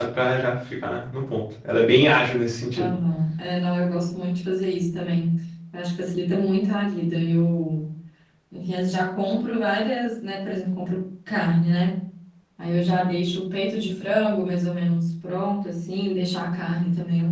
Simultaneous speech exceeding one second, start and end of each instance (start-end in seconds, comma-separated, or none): none